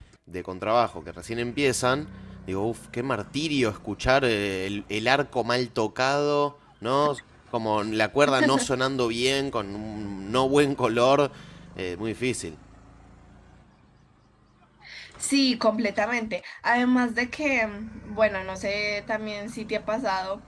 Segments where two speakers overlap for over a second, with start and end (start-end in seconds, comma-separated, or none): none